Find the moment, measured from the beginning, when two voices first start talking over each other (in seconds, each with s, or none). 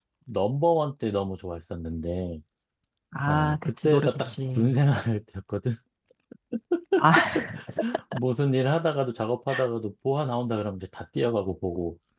3.3 s